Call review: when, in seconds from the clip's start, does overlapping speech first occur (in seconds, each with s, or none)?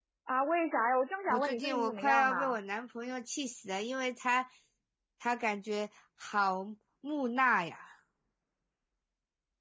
1.3 s